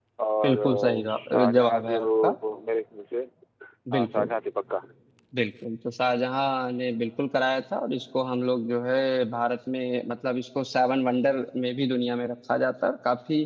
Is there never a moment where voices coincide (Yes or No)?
No